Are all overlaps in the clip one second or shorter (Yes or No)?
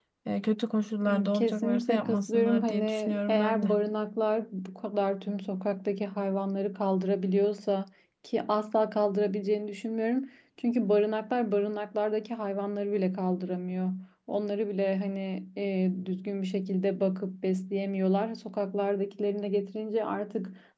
No